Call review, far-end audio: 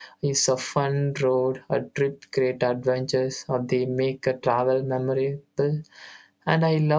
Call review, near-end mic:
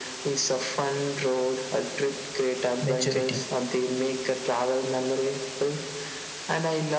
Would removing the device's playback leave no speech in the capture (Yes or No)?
No